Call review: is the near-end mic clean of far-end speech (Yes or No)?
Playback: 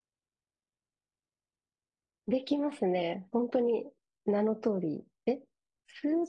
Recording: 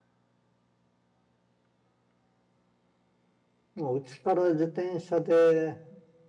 Yes